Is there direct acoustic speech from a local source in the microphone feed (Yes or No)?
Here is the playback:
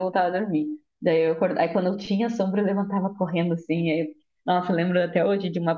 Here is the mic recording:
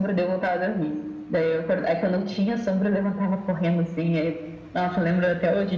No